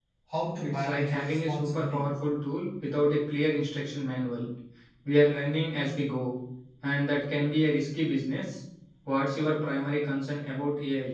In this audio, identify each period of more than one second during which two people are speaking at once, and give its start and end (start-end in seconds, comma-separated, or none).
0.6-2.0